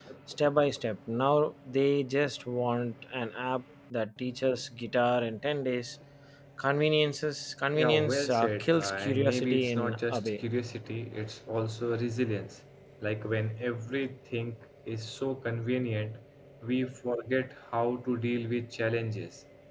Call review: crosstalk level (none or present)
present